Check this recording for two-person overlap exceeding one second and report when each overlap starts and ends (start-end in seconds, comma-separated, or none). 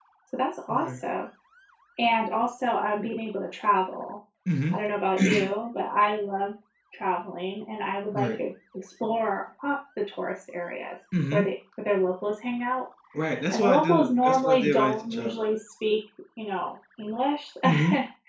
13.5-15.3